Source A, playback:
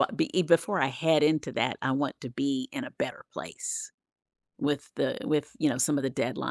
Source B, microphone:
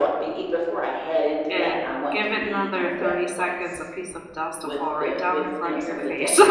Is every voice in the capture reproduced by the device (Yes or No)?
No